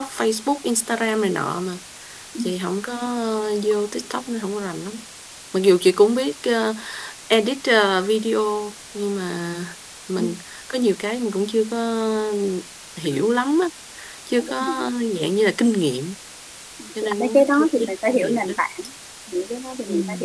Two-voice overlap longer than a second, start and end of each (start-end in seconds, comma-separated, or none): 17.0-18.5